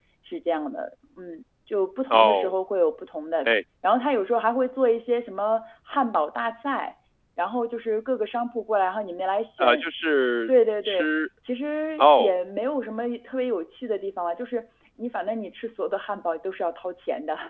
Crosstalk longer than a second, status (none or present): none